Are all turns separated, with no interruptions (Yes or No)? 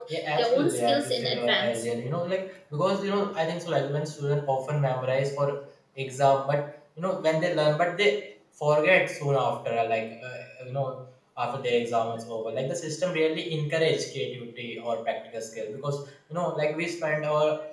No